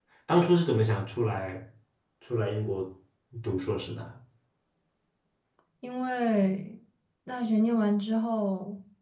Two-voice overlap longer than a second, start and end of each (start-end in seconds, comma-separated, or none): none